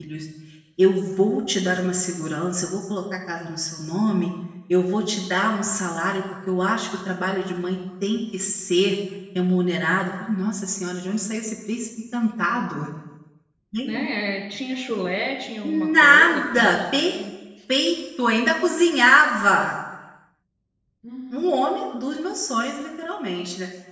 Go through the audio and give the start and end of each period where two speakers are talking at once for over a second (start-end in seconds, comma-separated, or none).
15.6-17.2